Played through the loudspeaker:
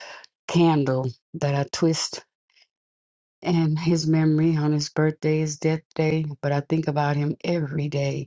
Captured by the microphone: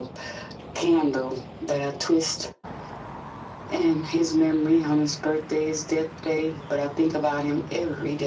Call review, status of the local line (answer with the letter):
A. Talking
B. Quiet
B